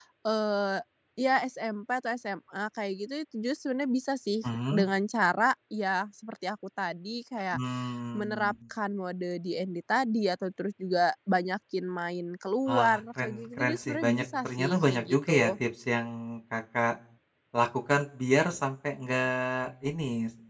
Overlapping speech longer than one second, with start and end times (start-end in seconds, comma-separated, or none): 12.7-15.5